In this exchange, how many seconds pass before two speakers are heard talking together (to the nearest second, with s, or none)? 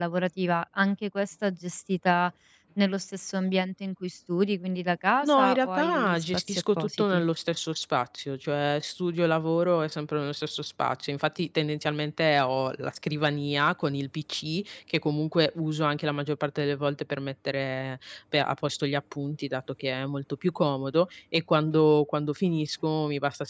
5 s